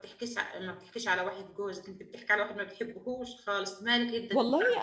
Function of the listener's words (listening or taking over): taking over